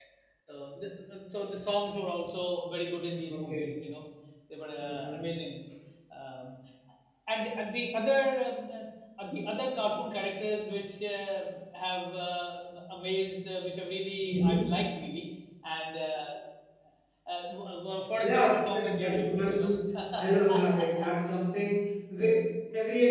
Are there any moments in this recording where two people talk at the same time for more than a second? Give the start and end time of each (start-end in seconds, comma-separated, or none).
18.2-19.7